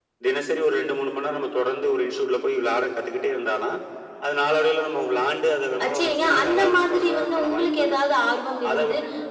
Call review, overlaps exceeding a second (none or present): present